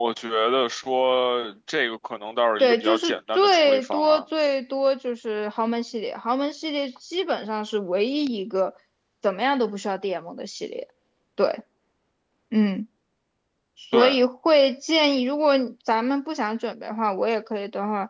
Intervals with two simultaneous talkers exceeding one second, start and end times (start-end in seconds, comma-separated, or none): 2.6-4.2